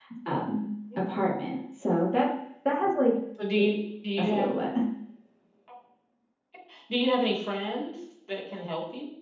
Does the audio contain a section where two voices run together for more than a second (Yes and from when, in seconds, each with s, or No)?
No